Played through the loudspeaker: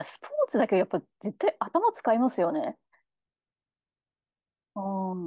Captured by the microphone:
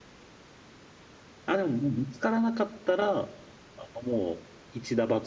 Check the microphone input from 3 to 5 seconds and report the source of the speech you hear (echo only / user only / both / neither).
user only